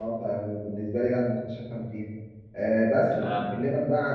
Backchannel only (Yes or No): Yes